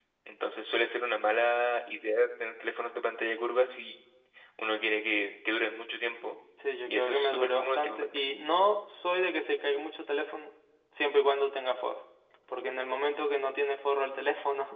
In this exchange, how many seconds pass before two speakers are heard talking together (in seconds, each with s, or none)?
6.9 s